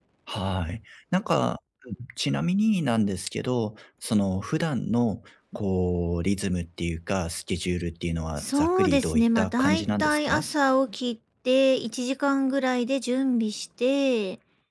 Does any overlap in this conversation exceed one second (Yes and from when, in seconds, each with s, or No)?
Yes, from 8.4 s